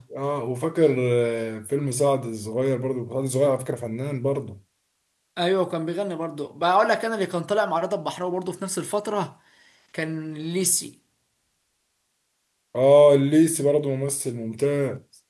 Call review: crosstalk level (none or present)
none